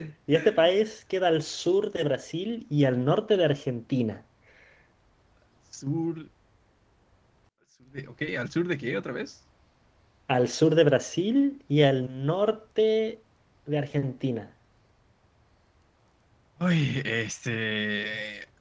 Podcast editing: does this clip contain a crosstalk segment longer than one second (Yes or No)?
No